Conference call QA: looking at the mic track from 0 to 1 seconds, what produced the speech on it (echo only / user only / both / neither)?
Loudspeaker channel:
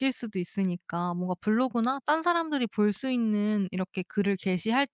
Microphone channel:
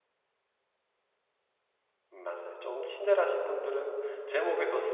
neither